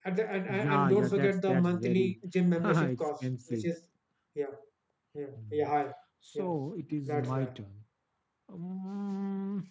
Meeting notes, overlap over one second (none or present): present